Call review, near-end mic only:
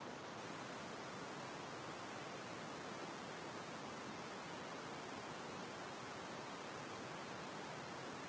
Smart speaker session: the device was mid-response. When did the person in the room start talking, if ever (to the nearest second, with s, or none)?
none